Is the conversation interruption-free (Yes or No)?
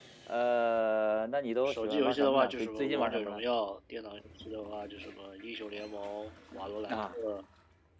No